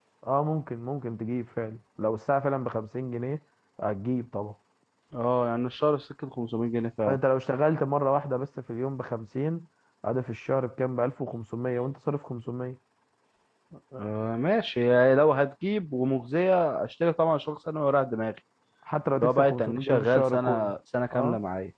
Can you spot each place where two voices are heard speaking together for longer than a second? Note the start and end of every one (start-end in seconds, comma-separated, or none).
19.2-20.7